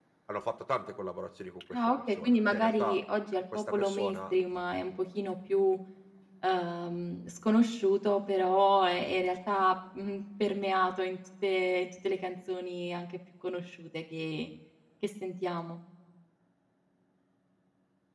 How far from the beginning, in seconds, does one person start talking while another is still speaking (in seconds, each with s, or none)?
1.7 s